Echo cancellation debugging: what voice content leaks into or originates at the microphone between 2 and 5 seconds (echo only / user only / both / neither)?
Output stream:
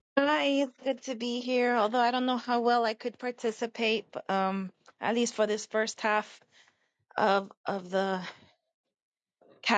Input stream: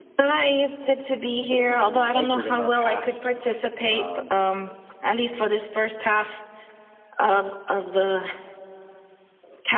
both